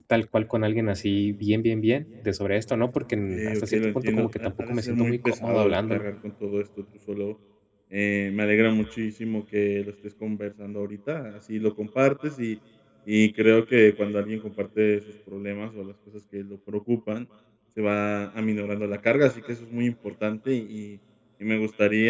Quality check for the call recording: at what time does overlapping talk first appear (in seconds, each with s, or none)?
3.3 s